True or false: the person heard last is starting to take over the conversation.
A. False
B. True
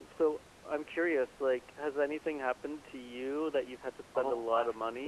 B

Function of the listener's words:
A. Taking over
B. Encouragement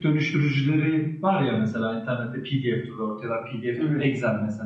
B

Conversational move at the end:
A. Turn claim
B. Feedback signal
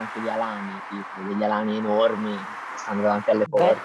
A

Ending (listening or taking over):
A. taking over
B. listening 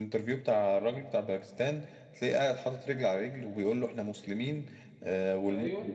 B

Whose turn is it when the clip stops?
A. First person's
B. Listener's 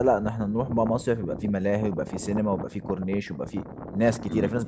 B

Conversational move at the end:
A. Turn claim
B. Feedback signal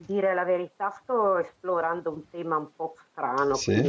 B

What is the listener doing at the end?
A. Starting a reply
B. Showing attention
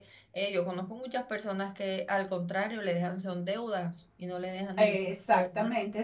A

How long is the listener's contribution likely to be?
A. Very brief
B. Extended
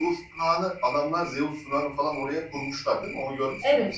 B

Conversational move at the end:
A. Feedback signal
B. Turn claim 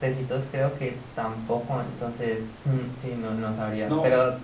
B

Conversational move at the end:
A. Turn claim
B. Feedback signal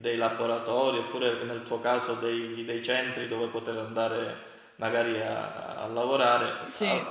B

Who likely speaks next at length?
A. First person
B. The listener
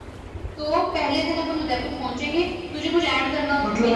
B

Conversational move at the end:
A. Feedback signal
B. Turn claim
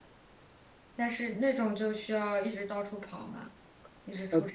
B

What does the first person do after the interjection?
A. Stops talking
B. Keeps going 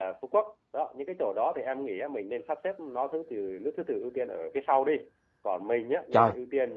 B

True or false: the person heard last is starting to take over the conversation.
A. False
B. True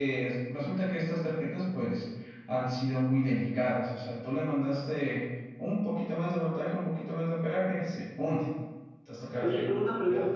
B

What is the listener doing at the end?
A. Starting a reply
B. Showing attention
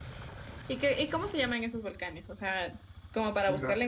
B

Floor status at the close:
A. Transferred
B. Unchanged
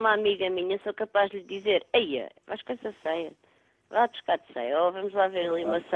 B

